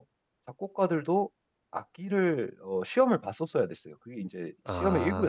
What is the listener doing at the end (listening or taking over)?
taking over